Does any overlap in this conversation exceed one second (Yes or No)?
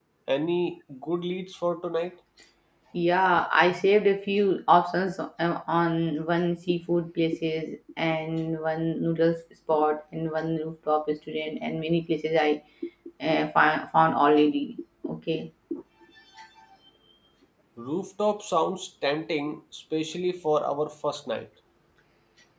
No